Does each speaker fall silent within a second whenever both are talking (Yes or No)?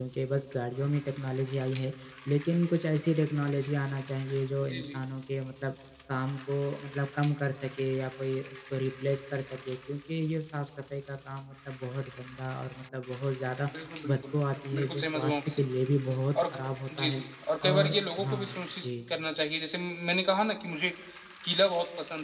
No